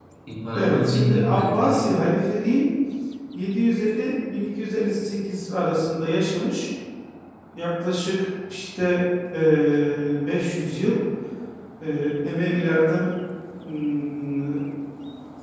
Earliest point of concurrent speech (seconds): 1 s

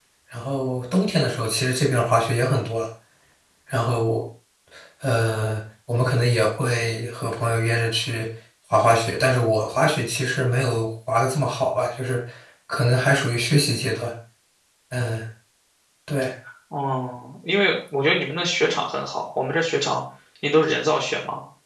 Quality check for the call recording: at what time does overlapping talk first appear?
none

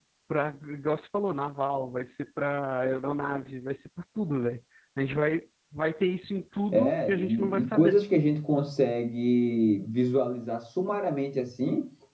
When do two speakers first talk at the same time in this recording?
7 s

